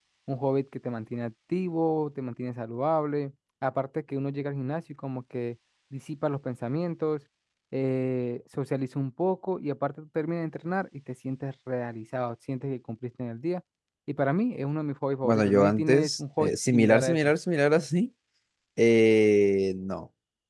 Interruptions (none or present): present